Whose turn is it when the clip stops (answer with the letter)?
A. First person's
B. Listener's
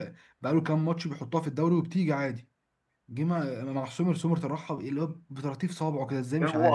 B